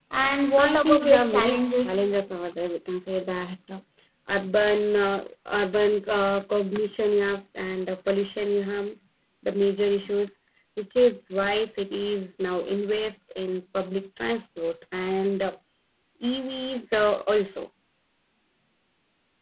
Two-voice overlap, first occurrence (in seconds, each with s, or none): 0.6 s